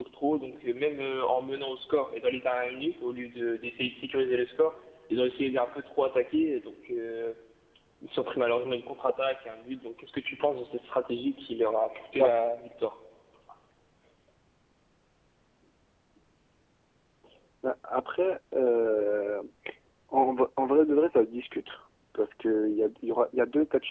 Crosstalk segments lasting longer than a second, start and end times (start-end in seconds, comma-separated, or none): none